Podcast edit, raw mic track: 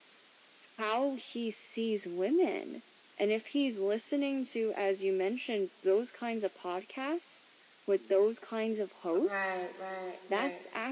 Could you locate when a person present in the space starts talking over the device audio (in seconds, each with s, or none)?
9.1 s